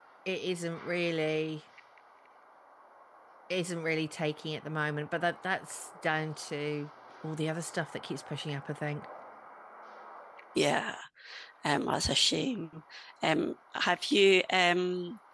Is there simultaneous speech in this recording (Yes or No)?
No